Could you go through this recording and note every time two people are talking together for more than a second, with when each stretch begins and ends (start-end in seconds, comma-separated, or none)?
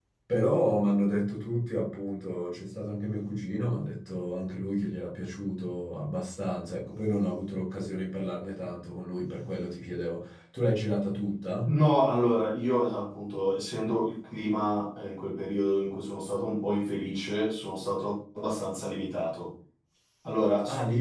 none